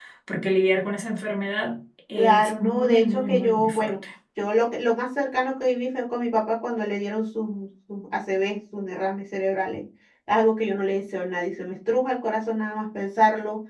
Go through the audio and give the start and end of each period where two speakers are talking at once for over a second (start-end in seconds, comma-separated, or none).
2.2-3.9